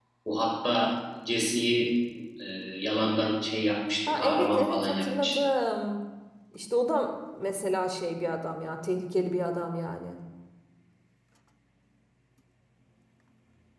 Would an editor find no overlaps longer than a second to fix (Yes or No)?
No